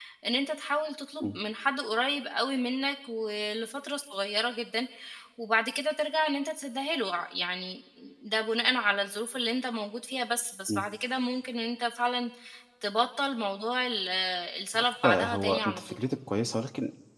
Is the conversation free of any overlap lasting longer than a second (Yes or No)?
No